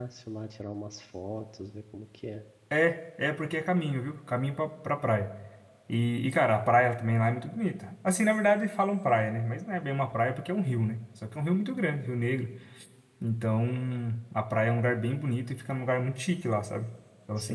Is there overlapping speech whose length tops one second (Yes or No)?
No